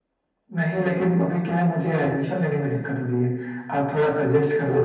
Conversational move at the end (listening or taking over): listening